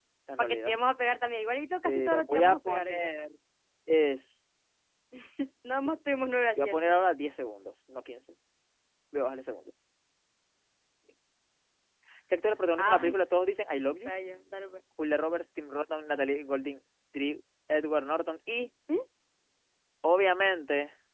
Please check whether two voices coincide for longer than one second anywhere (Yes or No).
Yes